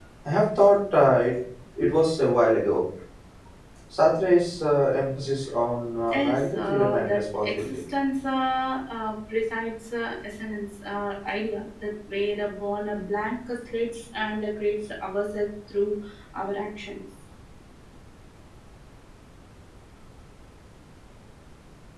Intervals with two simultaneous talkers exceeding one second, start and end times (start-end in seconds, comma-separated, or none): 6.1-7.7